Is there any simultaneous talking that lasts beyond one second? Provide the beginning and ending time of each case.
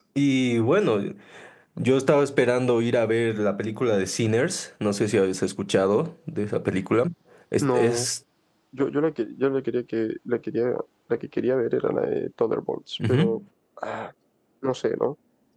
none

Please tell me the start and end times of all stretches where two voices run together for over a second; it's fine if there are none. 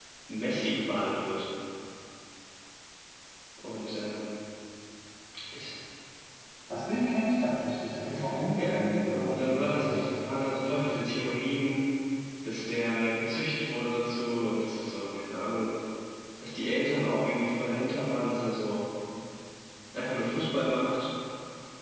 8.6-10.0

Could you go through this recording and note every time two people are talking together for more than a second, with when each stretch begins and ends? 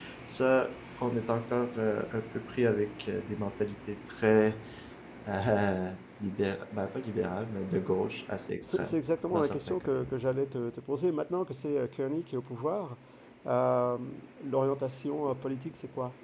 none

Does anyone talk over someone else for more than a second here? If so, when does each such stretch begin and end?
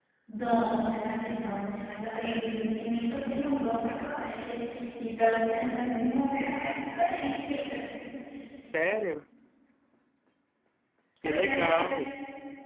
none

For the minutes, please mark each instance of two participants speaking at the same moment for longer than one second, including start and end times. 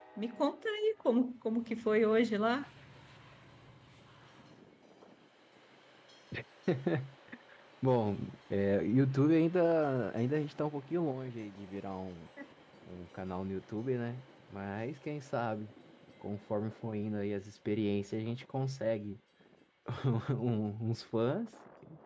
none

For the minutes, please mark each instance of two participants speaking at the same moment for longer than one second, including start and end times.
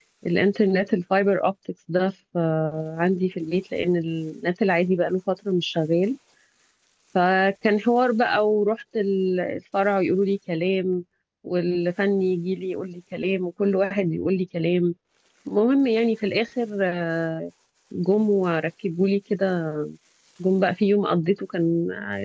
none

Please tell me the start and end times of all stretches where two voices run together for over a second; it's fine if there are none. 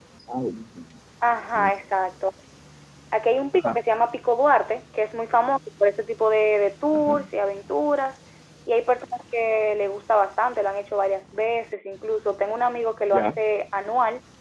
none

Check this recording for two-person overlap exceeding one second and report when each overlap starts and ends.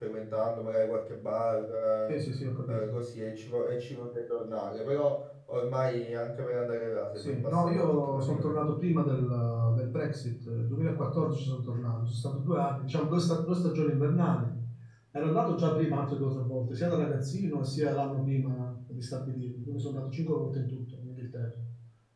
7.2-8.6

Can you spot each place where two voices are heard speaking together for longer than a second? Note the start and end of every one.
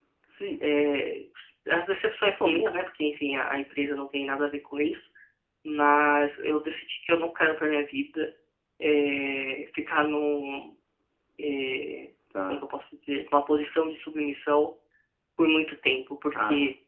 none

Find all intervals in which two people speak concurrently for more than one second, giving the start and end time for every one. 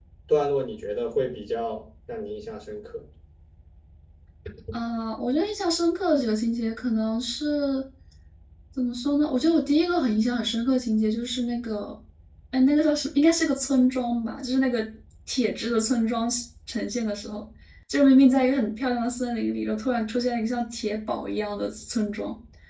none

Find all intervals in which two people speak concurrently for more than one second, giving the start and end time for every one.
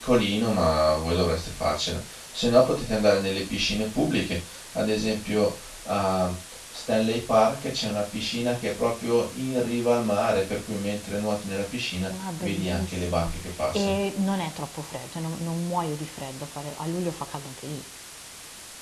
12.4-14.0

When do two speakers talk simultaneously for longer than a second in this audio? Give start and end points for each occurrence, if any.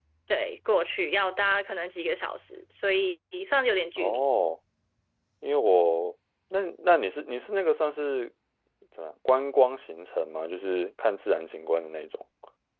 none

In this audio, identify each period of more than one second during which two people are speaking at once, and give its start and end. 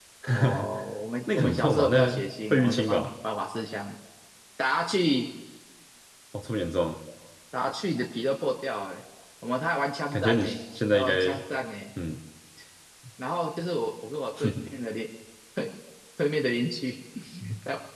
1.4-3.0

